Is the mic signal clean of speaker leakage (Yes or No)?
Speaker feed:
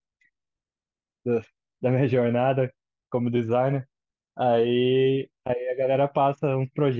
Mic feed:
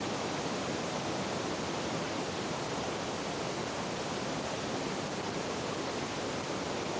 Yes